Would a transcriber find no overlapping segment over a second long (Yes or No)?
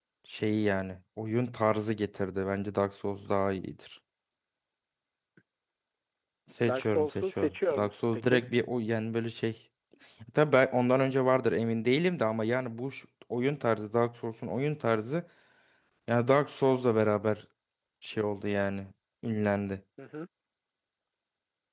No